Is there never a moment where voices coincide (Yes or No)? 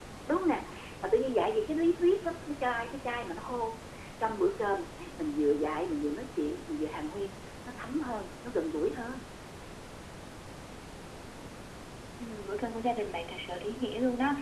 Yes